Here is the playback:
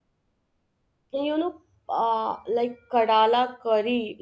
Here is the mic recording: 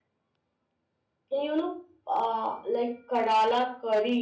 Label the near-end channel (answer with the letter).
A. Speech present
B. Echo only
B